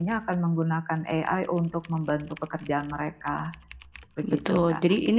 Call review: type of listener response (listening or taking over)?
taking over